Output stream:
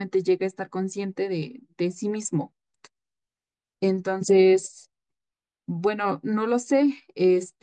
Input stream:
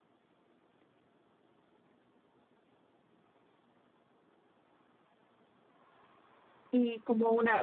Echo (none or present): none